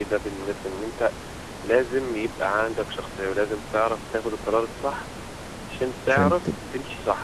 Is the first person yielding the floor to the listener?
No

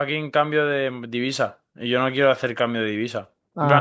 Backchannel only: Yes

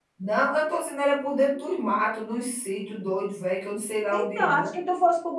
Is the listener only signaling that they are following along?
No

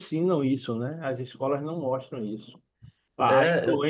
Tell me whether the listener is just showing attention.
Yes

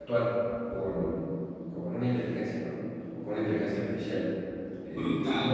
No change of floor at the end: No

